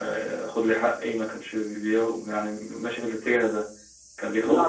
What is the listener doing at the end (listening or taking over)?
taking over